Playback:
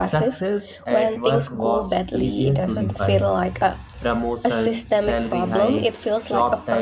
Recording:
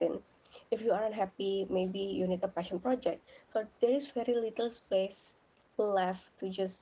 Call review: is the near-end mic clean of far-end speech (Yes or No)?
Yes